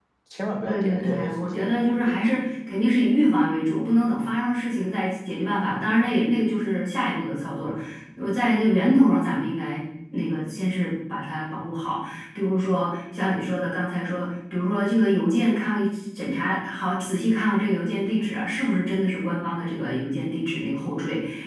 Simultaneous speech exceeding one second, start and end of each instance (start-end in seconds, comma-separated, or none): 0.6-2.4